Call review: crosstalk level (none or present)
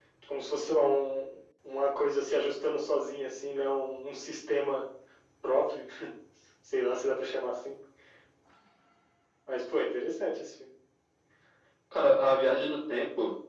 none